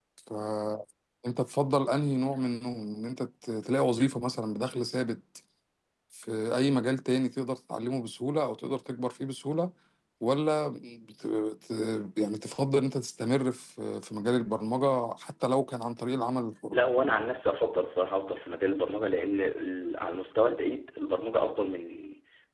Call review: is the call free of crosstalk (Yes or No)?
Yes